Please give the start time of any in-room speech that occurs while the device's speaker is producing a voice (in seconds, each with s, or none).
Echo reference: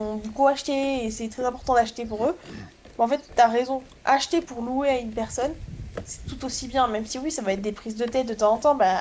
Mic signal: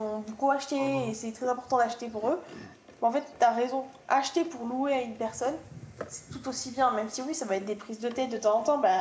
0.8 s